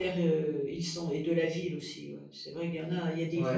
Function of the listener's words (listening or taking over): taking over